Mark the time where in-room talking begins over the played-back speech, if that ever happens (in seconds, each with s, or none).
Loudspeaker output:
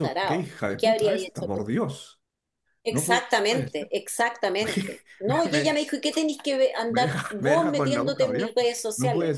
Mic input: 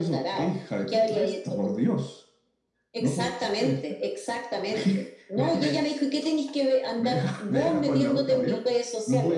none